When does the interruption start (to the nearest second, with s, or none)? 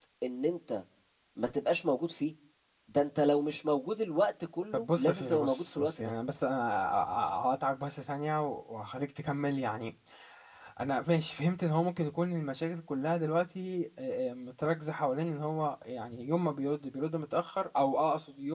5 s